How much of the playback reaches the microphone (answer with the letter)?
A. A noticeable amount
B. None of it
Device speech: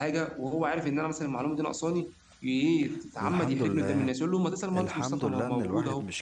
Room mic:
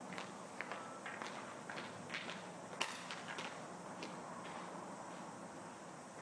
B